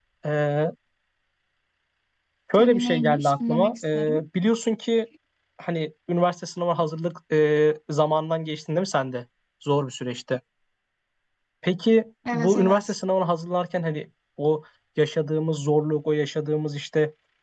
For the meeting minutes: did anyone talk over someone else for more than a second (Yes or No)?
Yes